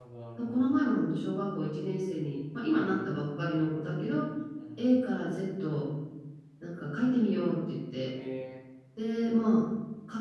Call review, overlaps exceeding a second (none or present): none